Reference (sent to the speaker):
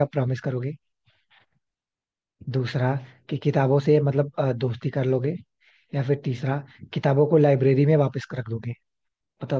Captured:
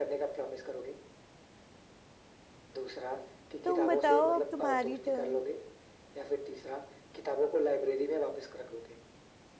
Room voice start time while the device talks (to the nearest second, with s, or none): 4 s